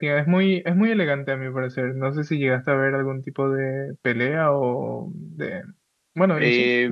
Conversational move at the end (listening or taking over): taking over